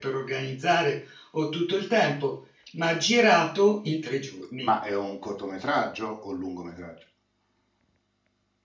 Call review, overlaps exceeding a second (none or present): none